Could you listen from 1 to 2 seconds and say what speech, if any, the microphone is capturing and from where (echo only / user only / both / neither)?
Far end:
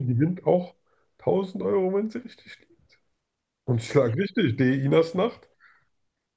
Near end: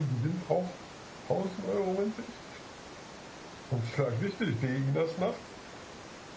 echo only